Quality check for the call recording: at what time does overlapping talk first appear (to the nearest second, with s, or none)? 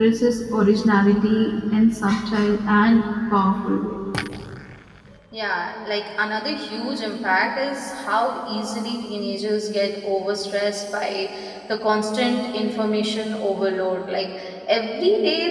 none